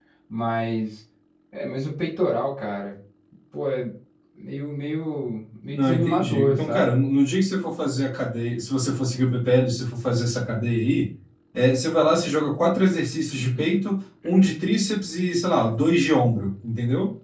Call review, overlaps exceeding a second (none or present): present